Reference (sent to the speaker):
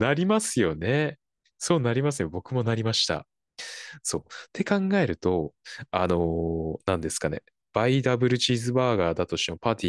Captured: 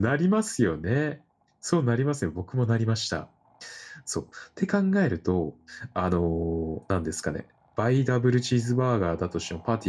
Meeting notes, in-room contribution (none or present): none